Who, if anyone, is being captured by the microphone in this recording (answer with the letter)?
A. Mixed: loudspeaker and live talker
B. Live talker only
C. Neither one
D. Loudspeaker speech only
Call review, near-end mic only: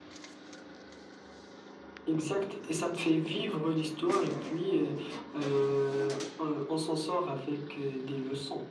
D